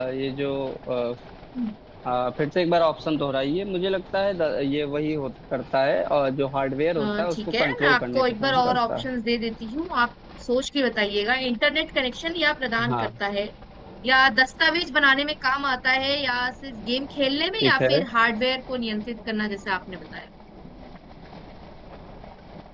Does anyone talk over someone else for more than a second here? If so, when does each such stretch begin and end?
7.0-9.1

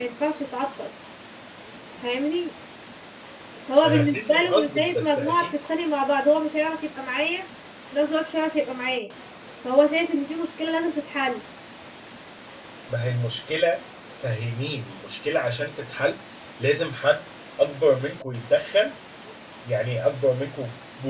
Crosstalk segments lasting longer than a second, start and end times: 3.8-5.5

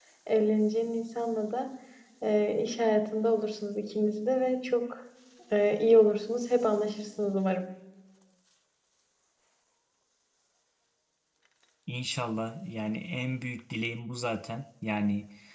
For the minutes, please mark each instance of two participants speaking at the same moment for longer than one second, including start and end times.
none

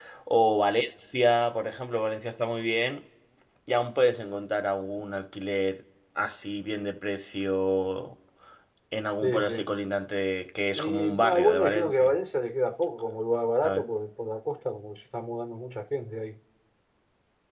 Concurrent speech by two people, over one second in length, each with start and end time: 10.8-12.1

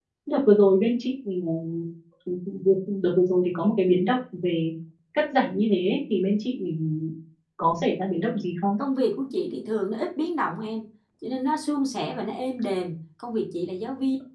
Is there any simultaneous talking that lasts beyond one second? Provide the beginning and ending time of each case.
none

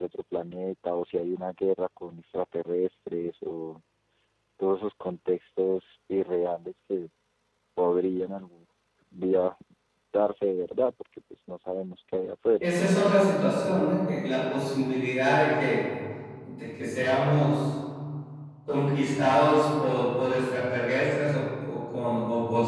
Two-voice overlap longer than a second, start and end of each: none

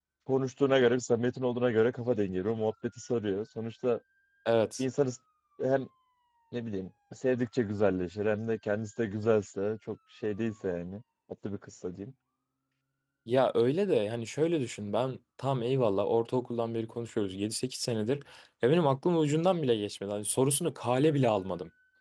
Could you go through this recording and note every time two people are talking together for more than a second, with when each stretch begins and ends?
none

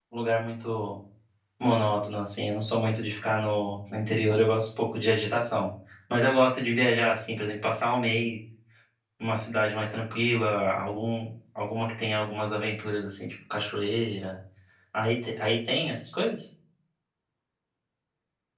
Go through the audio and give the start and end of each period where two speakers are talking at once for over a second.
none

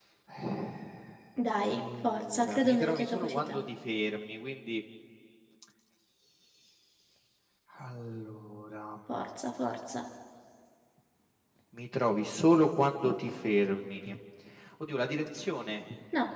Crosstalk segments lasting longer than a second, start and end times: 1.7-3.6

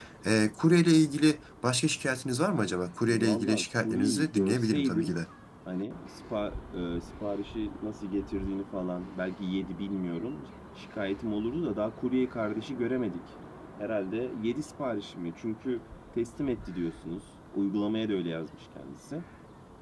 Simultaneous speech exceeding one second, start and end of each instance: 3.0-5.2

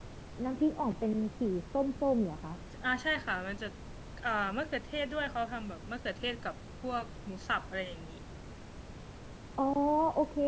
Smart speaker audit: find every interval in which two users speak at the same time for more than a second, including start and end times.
none

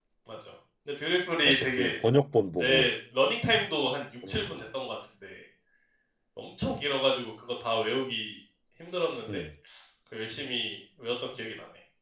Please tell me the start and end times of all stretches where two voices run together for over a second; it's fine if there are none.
none

